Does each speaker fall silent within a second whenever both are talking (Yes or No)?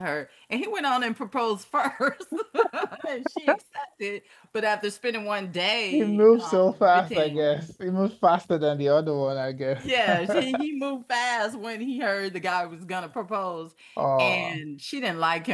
No